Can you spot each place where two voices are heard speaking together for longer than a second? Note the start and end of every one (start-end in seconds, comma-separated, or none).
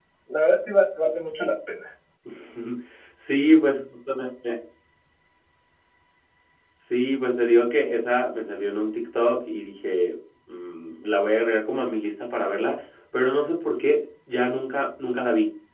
none